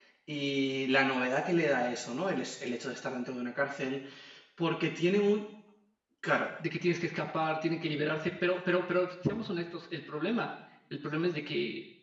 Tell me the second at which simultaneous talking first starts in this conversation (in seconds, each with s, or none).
none